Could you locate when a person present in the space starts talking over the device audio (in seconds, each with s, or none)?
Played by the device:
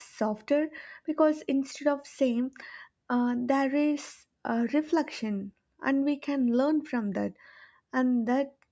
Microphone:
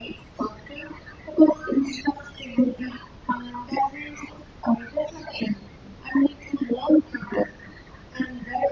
none